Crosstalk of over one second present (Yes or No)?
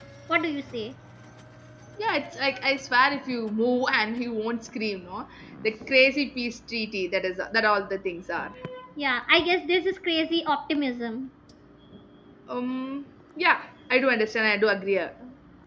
No